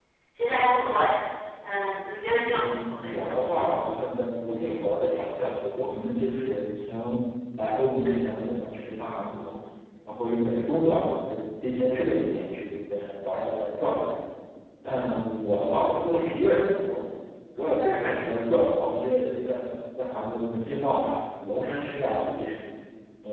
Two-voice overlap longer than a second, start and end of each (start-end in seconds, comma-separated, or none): 2.3-3.6